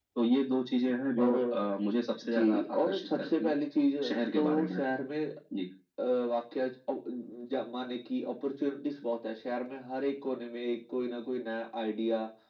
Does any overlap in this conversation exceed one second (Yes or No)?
Yes